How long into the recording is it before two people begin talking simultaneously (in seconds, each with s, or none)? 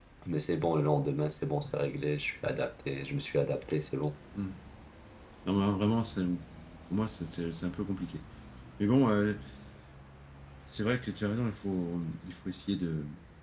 none